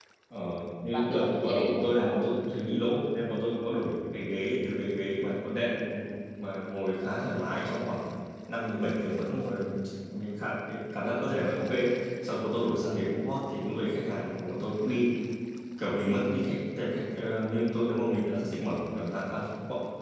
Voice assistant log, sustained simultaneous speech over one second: present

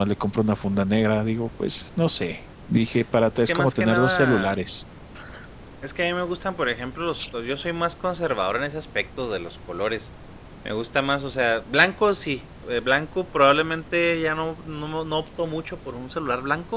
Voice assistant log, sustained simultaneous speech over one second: present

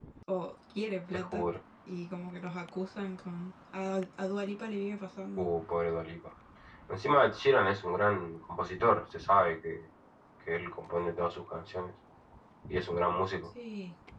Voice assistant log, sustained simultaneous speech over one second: none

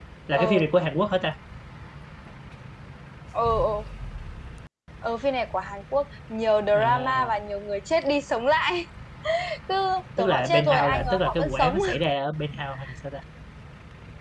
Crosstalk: present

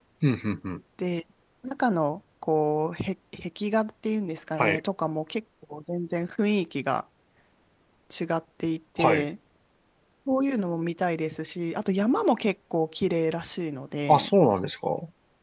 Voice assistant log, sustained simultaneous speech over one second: none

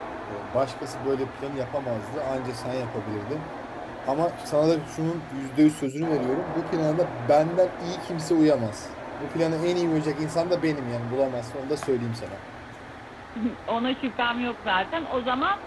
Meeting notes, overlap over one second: none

